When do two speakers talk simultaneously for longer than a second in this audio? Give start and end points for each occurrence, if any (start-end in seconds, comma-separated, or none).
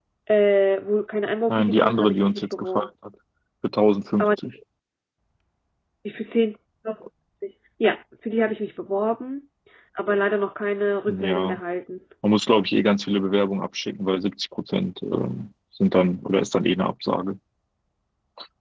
1.5-2.9